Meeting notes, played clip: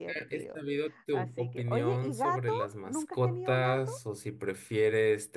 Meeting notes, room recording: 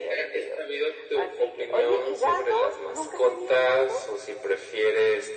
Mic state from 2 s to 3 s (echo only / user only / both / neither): echo only